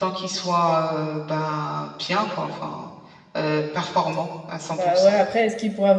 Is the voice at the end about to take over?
Yes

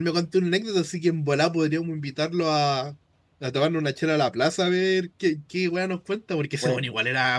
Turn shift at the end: Yes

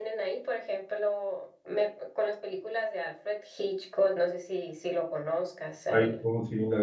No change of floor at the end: No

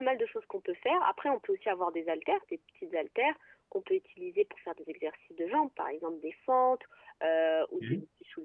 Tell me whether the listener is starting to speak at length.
No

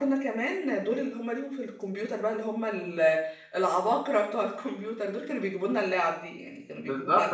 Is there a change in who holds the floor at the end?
Yes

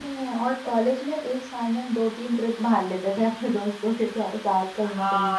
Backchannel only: No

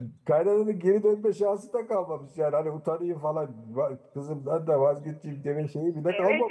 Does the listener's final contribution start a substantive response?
Yes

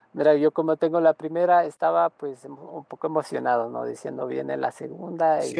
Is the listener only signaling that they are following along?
No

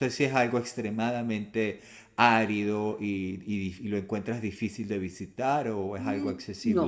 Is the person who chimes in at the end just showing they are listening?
No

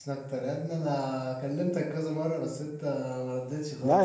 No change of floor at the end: No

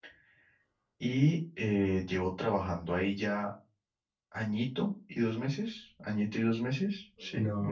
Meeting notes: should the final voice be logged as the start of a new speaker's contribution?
Yes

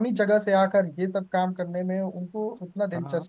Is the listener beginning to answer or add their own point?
Yes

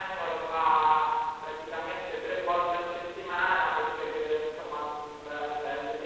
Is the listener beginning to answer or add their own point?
No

